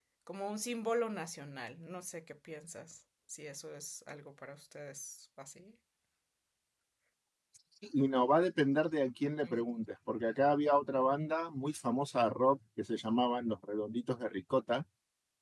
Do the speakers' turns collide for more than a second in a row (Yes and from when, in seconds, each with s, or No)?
No